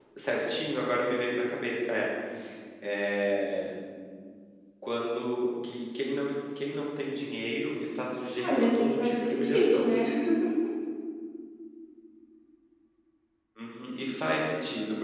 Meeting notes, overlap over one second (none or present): present